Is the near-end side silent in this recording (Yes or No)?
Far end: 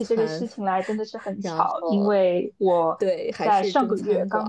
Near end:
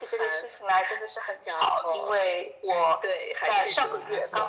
No